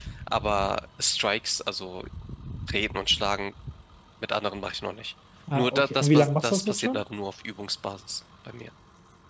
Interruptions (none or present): present